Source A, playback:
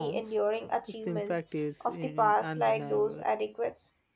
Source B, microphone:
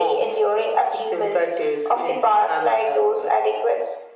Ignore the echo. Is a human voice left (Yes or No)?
No